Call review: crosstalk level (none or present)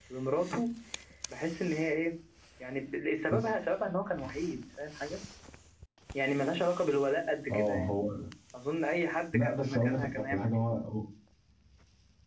present